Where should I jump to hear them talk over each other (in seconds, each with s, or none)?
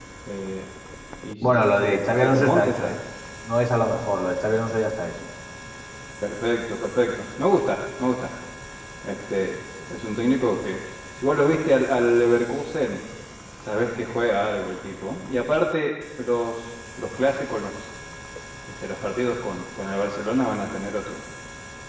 1.4 s